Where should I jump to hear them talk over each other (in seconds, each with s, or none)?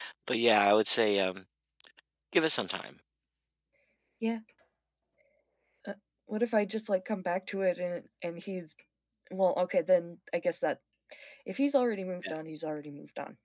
none